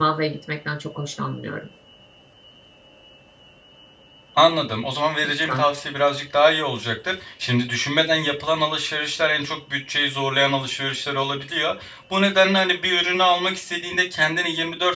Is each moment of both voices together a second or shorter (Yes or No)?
Yes